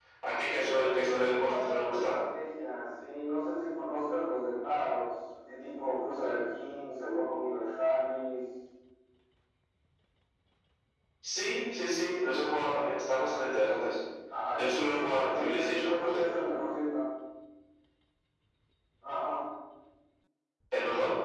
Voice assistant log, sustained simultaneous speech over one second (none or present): present